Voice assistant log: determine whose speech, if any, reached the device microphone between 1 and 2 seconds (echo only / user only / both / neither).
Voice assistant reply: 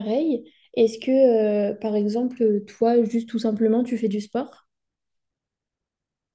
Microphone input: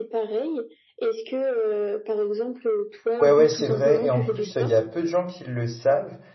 echo only